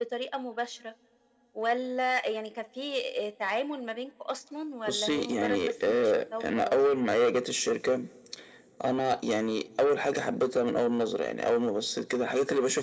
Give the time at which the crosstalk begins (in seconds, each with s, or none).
4.9 s